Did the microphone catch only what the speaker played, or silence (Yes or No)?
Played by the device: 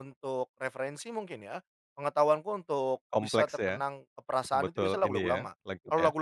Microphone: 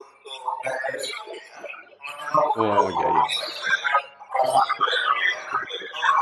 No